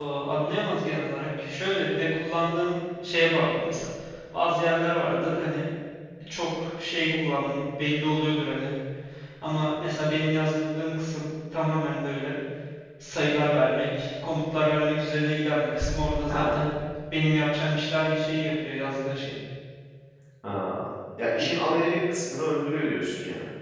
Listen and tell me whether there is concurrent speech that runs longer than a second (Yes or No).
No